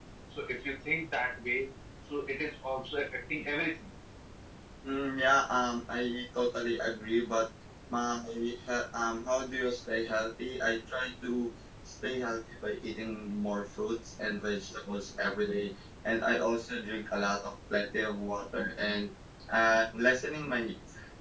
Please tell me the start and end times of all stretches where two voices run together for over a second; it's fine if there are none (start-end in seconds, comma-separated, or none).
none